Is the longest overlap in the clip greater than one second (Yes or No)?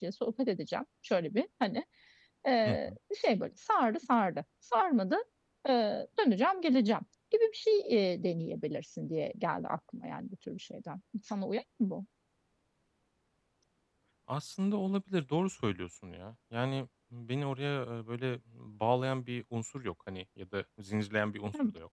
No